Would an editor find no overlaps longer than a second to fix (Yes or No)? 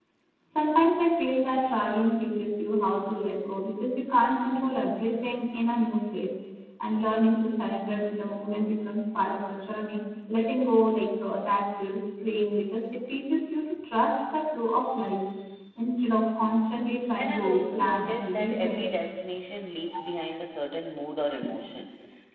No